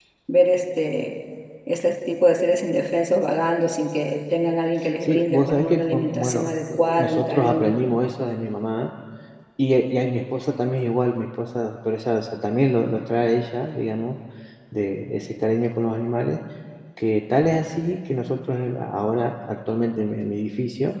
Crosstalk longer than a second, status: present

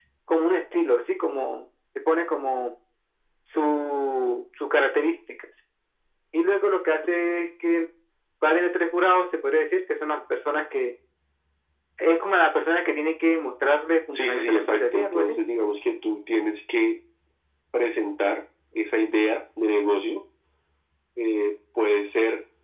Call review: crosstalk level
present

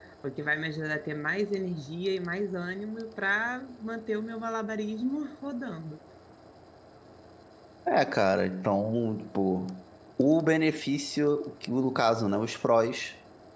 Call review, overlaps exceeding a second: none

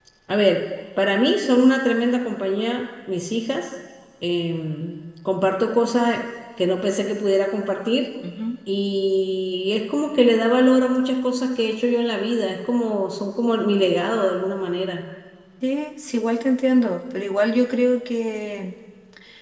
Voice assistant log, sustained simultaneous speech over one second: none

